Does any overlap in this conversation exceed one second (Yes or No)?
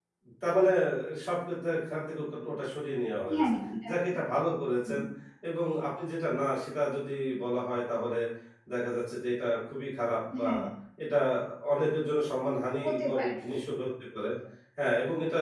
No